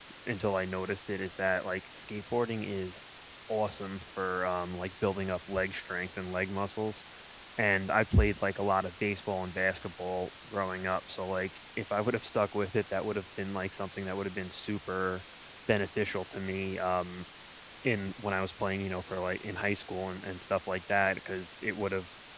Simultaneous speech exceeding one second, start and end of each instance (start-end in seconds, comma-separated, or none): none